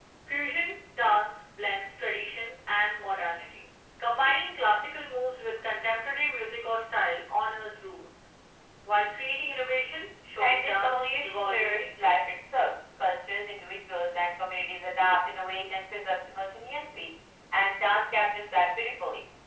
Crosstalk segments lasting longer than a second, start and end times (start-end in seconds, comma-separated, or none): 10.4-12.2